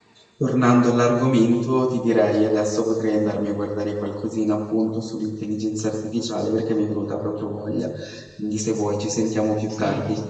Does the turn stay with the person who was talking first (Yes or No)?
No